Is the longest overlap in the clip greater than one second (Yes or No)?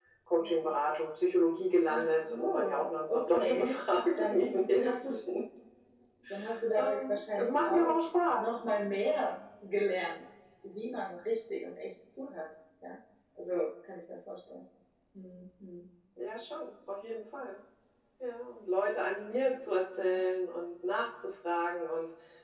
Yes